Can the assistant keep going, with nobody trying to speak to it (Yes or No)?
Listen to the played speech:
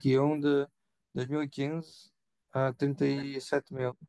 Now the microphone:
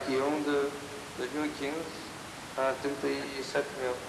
Yes